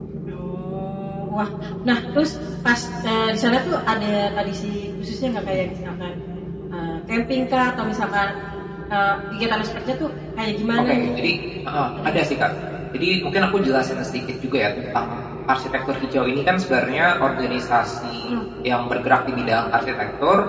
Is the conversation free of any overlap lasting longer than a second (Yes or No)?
Yes